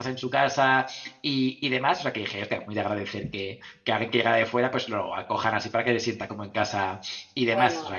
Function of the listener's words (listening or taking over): taking over